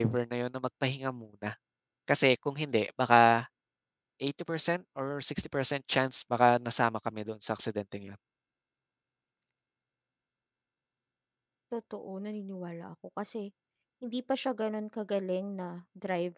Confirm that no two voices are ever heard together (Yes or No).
Yes